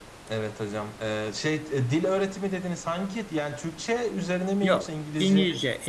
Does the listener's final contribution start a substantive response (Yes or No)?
Yes